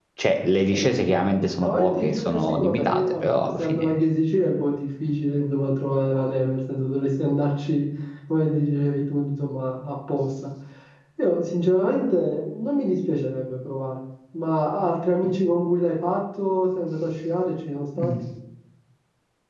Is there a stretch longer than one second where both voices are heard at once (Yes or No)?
Yes